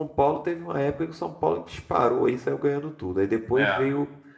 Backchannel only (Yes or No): Yes